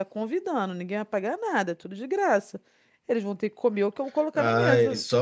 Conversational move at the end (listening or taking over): taking over